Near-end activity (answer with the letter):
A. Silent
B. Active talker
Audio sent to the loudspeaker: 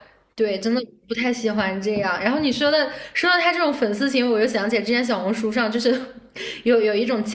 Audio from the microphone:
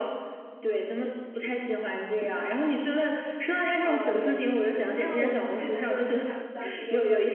B